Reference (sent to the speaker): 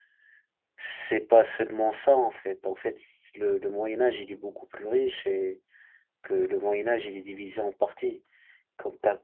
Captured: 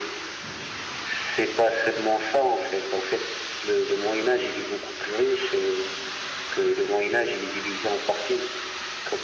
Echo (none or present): present